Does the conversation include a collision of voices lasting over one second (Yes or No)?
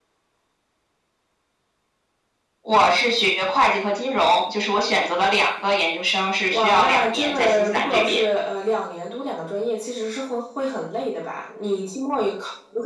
Yes